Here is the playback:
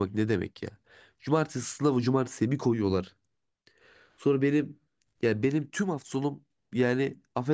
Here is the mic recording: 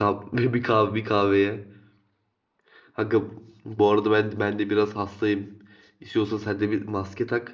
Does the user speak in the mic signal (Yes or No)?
Yes